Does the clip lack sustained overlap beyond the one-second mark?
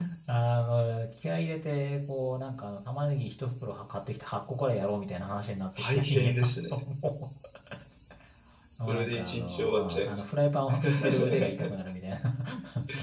No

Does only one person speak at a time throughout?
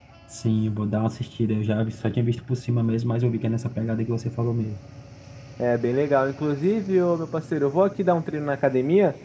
Yes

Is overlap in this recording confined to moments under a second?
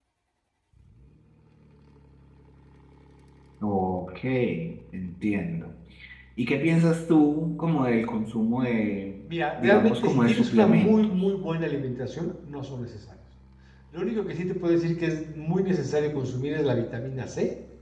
No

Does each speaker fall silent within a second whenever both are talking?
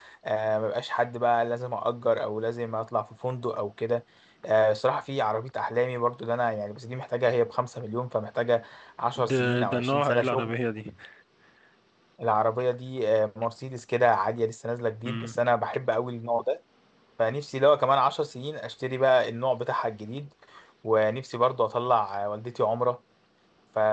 No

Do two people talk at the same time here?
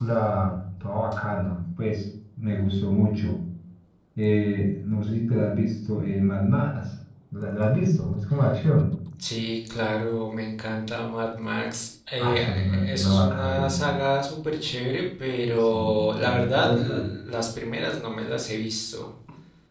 Yes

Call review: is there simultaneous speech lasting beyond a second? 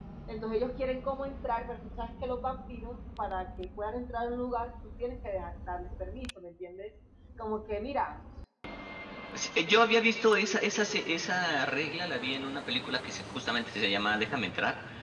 No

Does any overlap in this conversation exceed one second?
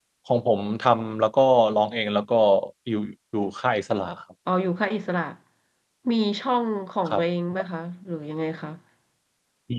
No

